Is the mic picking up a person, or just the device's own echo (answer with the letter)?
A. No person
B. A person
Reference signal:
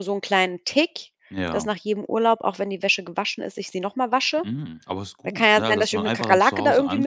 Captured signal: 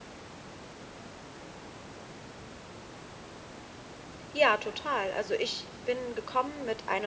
B